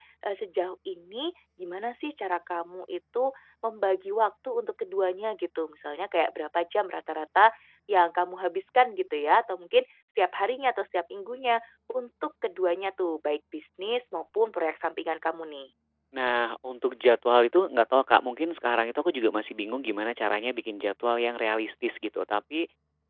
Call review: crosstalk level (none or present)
none